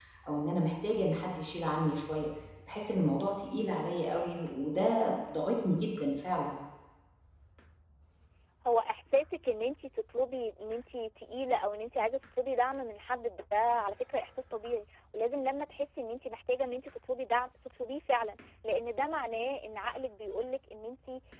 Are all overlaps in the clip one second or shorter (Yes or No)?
Yes